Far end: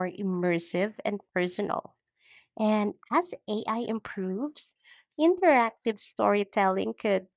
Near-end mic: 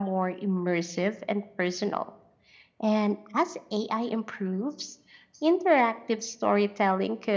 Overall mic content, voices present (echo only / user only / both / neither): echo only